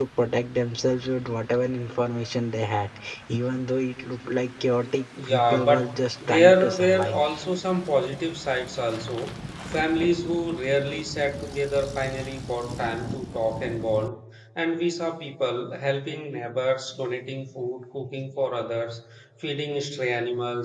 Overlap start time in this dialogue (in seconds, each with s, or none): 5.2 s